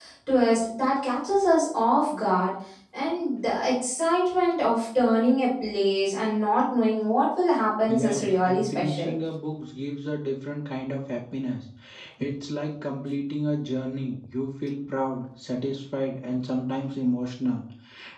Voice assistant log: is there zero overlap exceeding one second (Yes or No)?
No